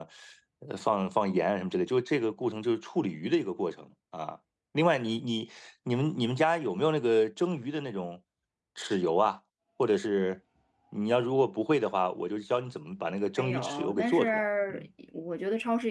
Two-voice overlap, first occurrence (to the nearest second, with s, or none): 13 s